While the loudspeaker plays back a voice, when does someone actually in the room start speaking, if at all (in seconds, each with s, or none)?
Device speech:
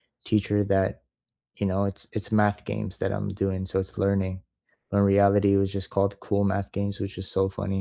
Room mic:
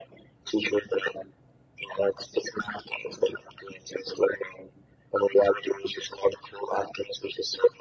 none